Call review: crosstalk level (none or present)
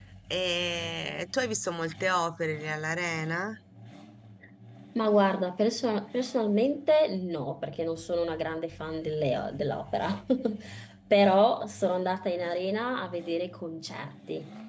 none